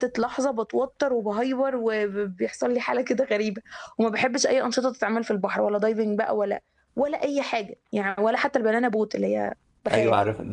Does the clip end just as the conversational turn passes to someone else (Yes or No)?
Yes